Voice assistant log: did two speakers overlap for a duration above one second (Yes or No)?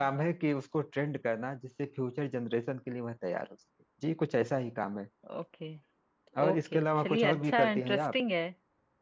Yes